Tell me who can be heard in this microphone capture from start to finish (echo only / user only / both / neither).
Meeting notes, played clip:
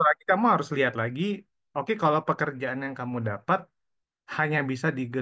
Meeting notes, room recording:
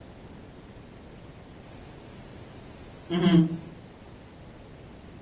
user only